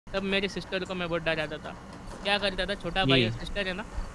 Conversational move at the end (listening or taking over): listening